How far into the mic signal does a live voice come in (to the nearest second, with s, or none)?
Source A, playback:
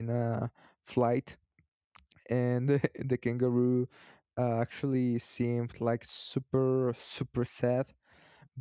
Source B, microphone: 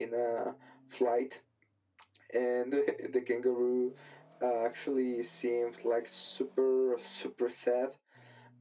none